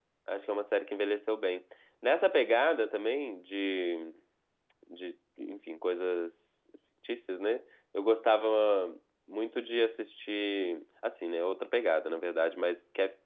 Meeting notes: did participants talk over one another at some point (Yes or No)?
No